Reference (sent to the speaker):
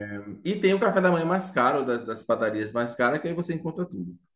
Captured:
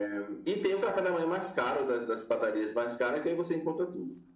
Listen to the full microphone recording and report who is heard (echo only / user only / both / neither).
echo only